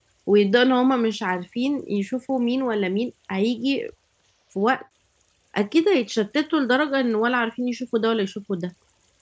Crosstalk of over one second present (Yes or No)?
No